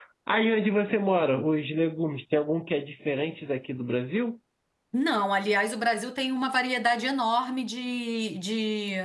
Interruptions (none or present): none